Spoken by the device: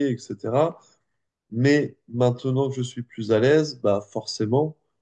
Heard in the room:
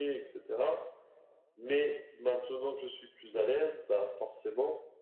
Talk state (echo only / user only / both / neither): echo only